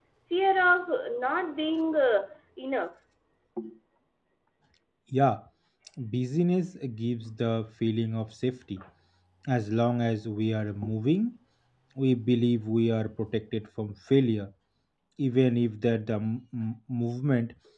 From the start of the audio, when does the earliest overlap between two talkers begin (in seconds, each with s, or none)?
none